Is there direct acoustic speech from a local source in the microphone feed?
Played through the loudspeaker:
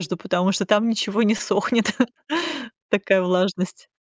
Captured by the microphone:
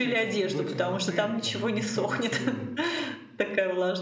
Yes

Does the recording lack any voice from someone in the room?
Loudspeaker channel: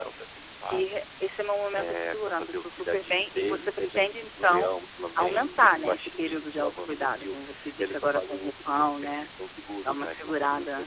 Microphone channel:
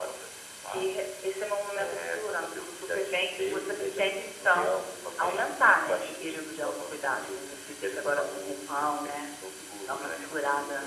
Yes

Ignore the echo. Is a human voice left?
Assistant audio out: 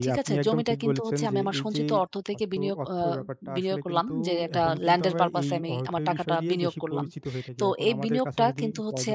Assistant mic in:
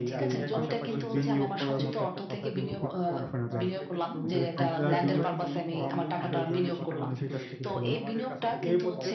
Yes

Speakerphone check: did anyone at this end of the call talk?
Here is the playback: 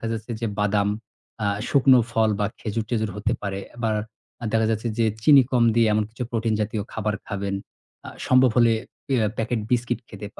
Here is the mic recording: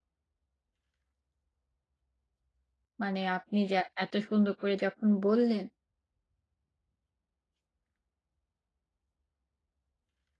Yes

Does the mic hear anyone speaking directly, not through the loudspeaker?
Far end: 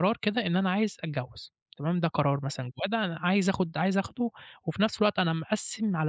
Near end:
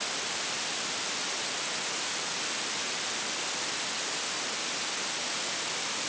No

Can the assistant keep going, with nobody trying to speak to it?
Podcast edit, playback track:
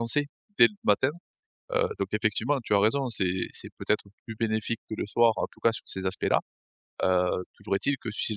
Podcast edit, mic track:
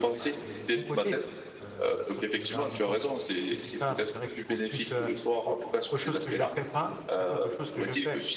No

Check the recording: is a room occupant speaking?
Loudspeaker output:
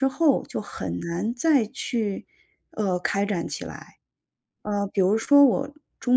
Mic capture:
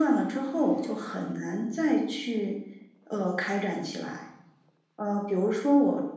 No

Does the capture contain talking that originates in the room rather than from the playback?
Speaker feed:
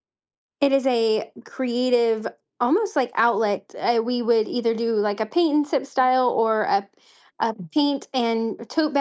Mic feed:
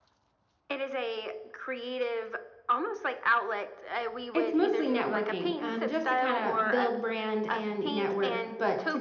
Yes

